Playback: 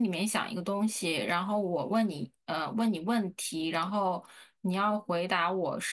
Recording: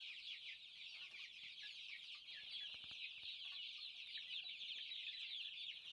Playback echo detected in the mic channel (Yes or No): No